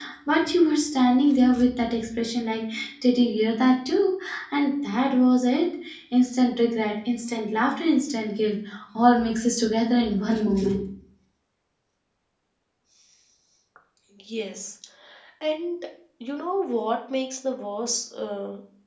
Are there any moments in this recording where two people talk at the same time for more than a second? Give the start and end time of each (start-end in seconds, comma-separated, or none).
none